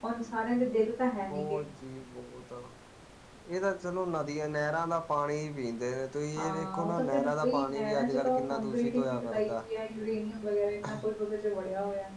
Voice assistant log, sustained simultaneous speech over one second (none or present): present